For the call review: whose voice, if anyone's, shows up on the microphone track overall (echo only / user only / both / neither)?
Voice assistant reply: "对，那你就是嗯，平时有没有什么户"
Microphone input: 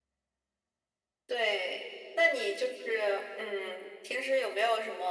echo only